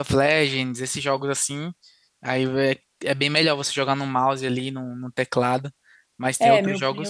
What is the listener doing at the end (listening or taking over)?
taking over